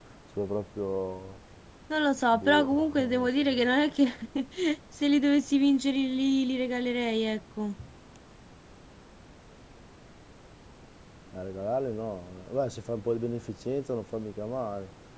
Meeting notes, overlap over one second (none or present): present